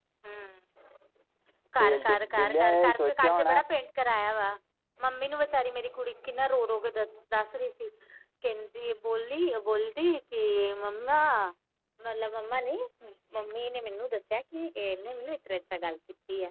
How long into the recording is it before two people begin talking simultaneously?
1.8 s

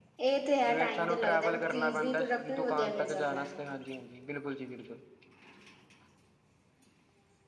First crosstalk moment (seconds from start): 0.6 s

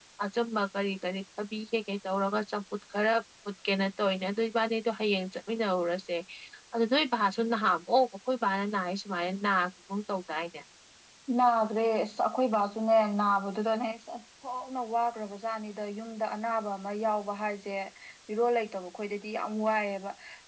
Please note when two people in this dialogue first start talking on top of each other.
none

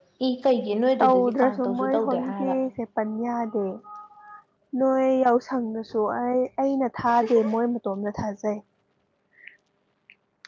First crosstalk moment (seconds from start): 1.0 s

